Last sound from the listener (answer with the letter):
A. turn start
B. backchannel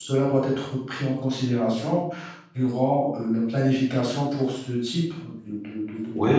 A